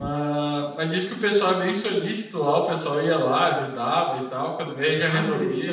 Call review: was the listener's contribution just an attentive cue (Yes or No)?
No